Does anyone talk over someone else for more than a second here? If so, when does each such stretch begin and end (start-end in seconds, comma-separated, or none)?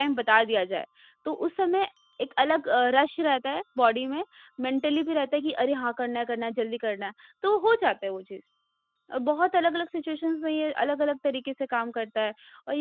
none